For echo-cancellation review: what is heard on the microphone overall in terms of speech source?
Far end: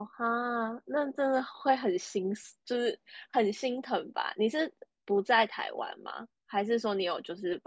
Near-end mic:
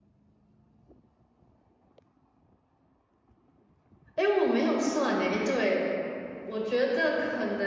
user only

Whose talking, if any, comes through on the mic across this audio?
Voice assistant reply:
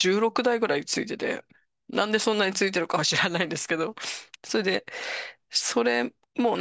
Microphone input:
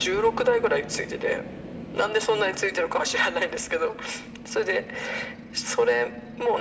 echo only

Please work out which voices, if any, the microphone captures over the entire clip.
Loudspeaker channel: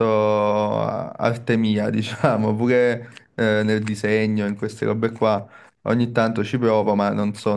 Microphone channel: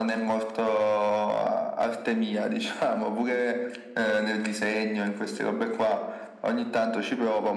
echo only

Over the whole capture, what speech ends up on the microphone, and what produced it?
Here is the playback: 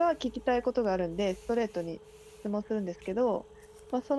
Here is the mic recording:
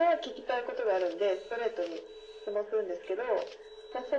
echo only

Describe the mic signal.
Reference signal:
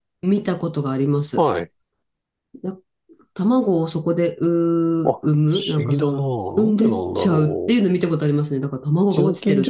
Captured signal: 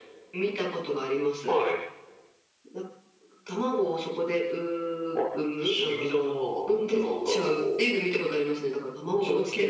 echo only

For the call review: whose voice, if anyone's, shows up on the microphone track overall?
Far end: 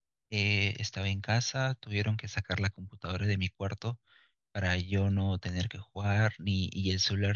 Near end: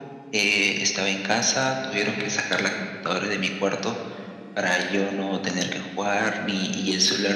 echo only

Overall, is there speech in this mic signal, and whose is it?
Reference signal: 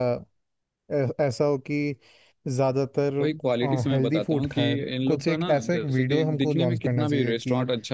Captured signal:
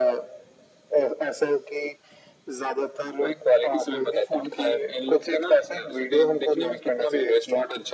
echo only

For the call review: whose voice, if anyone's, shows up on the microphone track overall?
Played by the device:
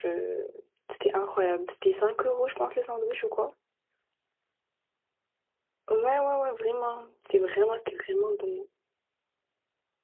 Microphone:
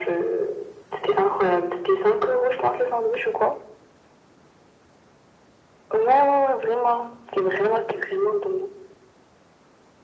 echo only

